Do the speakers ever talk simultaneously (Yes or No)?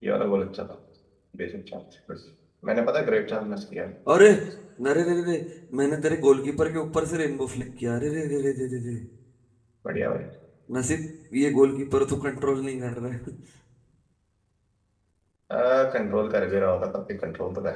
No